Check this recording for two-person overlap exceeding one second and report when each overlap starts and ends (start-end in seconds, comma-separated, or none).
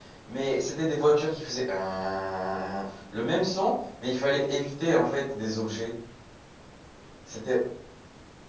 none